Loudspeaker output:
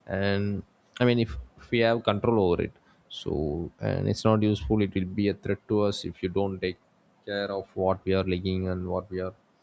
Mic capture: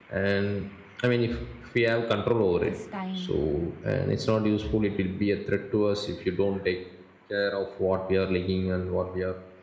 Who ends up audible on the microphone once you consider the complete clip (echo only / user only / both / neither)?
both